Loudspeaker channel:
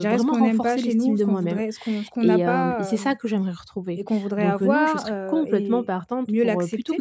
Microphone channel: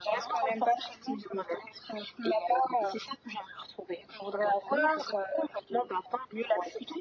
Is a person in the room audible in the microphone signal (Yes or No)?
No